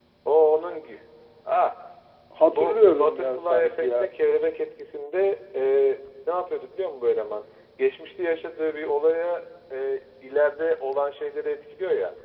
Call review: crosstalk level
present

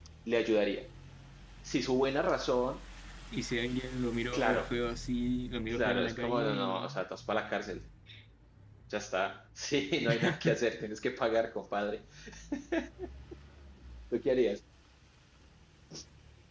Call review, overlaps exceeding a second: present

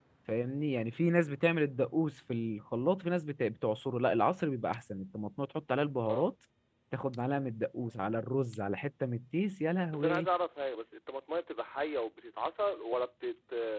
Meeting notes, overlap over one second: none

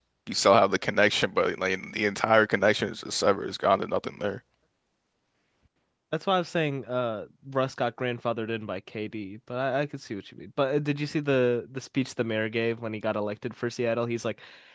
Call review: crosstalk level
none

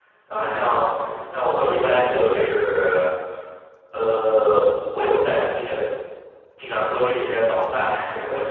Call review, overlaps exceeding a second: present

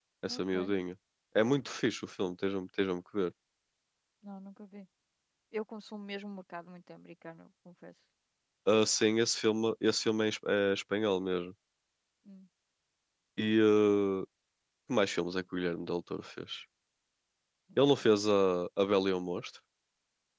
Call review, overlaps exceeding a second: none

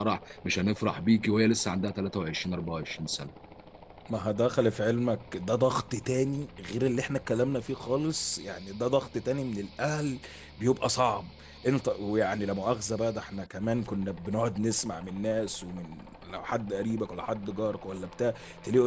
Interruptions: none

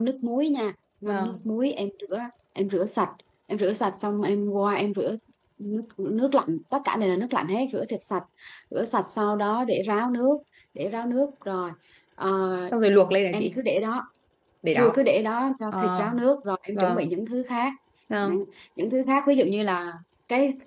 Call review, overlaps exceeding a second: none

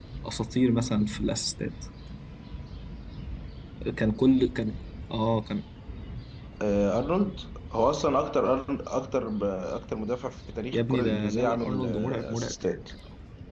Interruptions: present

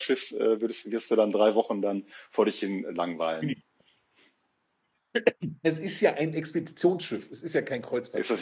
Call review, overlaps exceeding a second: none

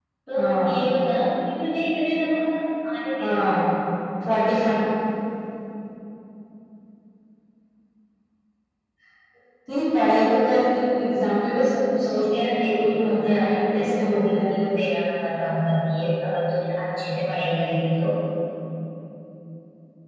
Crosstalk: present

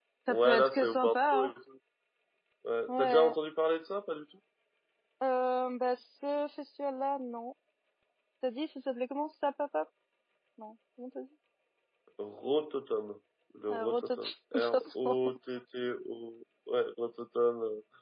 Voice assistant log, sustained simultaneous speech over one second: present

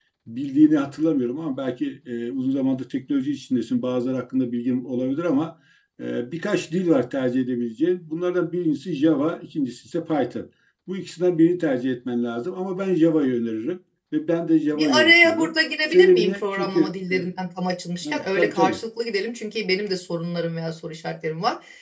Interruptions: present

